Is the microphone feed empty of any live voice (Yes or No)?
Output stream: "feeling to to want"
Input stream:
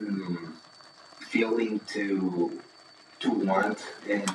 Yes